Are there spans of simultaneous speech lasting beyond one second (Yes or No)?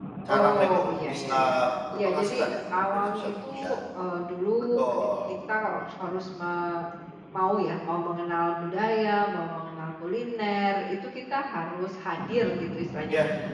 Yes